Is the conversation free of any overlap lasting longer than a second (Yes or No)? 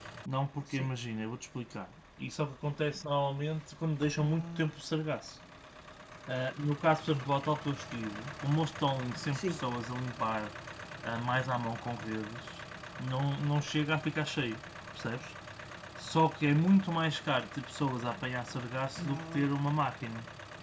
Yes